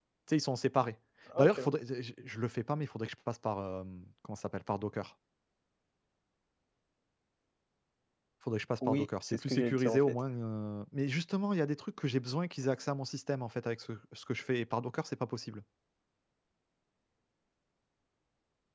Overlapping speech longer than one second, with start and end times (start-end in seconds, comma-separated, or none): 8.9-10.2